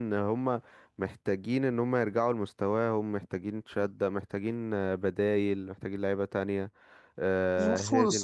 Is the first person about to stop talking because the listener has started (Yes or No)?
Yes